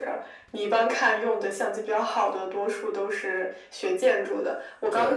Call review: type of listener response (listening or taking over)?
listening